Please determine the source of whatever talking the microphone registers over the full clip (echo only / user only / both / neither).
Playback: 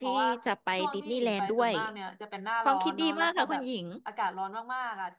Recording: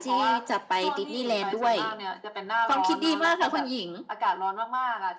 echo only